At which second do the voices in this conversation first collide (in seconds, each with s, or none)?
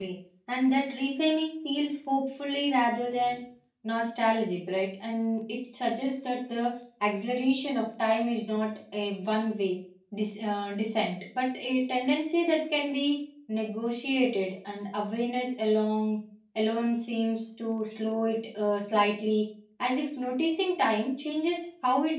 none